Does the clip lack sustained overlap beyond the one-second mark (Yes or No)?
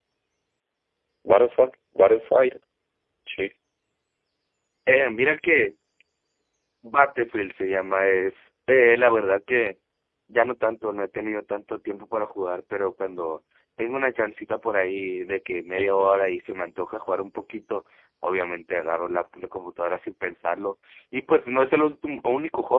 Yes